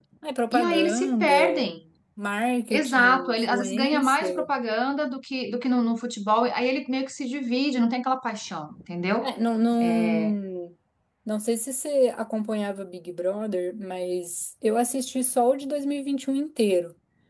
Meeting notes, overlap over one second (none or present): present